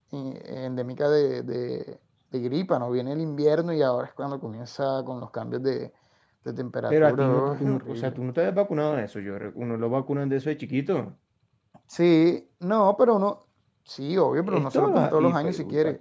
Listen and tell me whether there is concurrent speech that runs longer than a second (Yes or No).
Yes